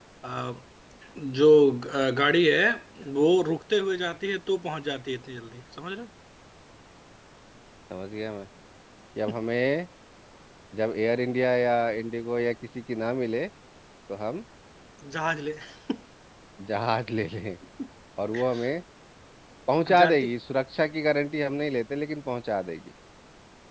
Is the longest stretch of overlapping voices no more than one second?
Yes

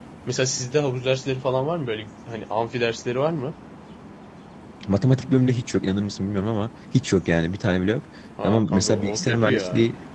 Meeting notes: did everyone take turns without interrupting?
No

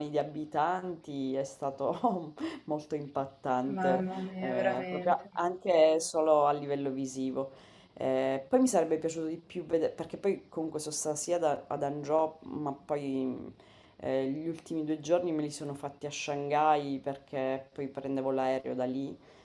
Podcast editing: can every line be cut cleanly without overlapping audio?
No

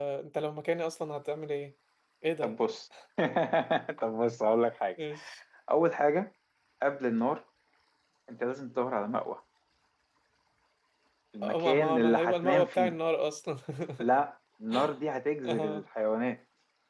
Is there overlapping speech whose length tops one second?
Yes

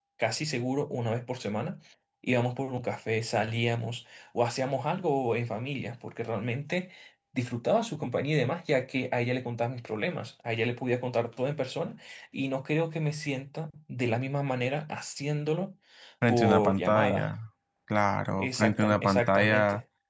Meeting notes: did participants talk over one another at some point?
Yes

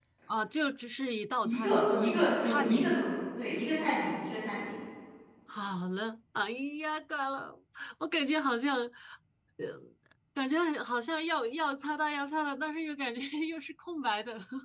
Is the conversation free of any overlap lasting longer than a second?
No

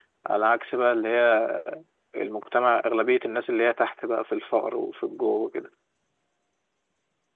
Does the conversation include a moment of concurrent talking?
No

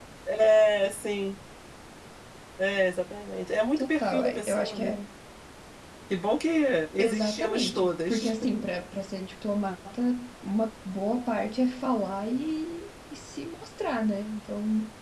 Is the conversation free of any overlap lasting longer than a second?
No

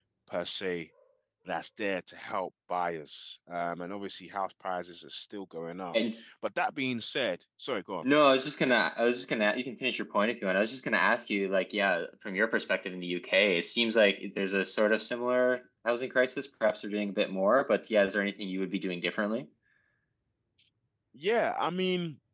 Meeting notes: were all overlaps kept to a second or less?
Yes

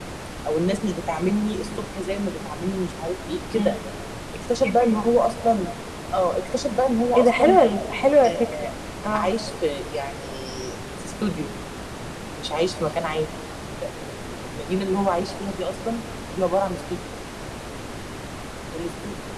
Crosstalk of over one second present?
No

